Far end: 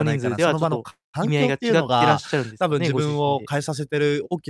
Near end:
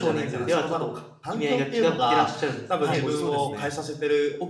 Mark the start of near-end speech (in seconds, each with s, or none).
2.8 s